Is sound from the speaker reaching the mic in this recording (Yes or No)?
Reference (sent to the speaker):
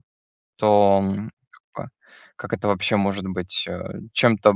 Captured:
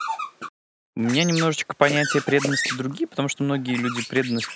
No